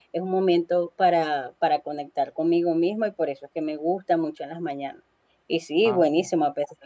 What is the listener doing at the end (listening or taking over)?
listening